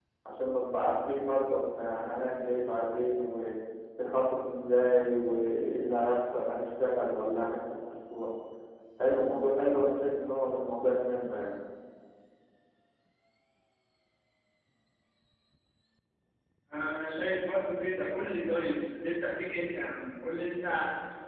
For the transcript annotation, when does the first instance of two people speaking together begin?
none

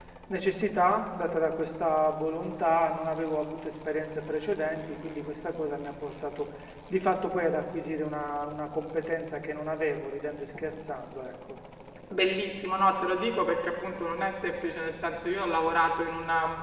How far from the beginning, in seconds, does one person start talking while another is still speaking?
none

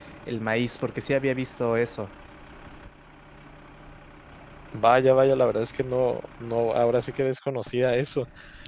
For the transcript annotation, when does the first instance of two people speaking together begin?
none

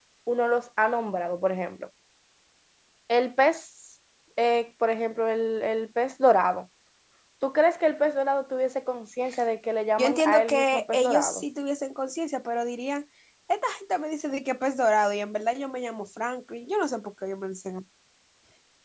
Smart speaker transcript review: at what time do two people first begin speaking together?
10 s

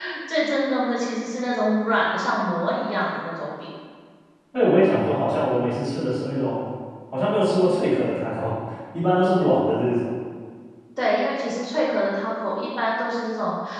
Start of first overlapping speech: none

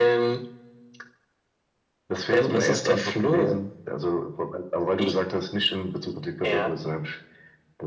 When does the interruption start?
2 s

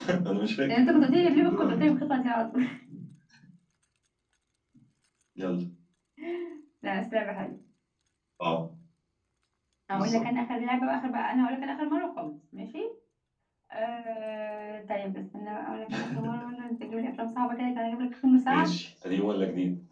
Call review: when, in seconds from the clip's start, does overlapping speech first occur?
1 s

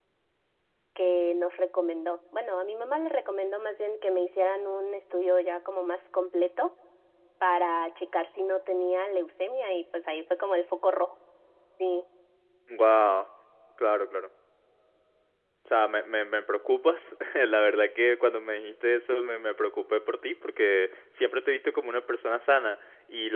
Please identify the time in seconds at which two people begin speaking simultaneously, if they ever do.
none

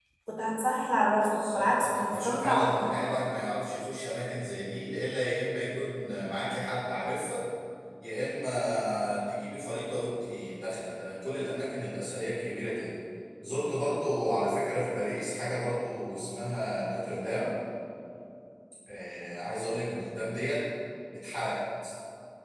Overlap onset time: 1 s

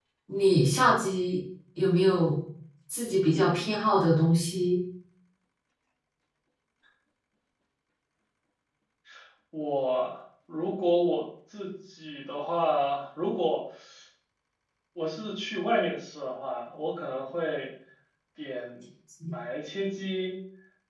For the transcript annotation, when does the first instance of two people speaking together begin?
none

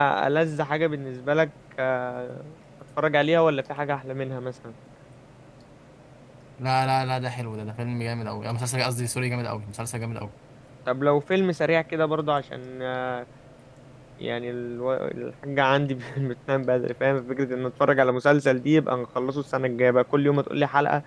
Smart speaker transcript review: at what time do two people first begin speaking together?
none

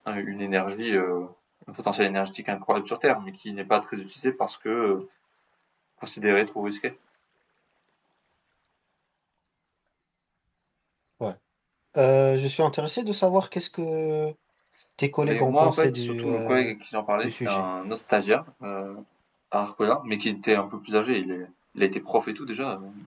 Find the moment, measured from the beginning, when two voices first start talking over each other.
15 s

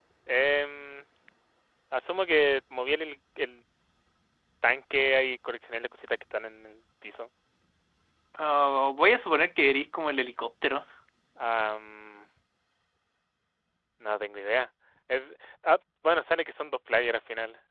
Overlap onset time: none

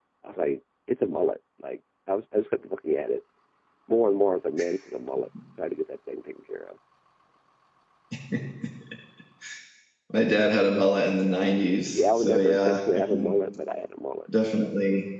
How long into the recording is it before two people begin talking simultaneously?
12 s

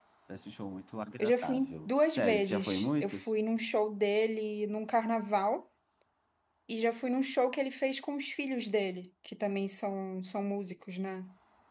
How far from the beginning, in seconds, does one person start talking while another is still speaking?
1 s

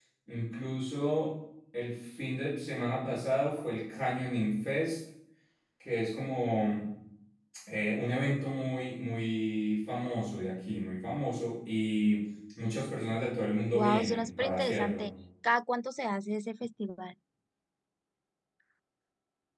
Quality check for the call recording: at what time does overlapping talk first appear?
14 s

